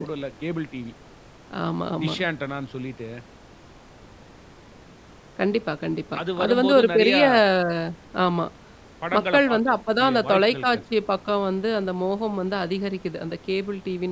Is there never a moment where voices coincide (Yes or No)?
No